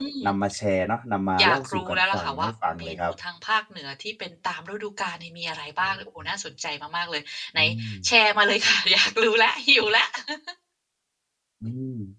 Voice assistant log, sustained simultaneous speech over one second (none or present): present